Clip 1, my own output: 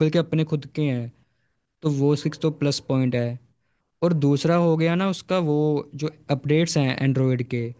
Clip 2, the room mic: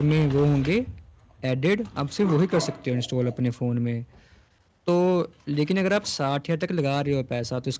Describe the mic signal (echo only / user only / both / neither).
user only